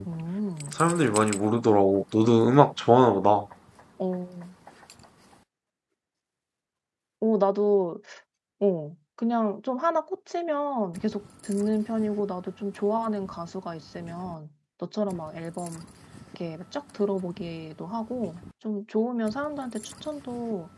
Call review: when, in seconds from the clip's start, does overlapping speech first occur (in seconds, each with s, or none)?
none